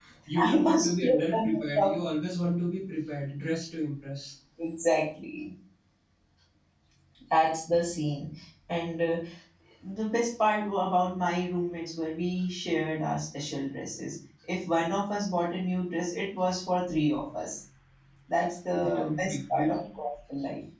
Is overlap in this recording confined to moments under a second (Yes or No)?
No